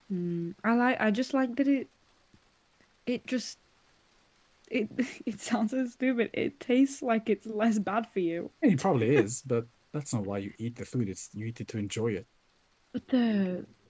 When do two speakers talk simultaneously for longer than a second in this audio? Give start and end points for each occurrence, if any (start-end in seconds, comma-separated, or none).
none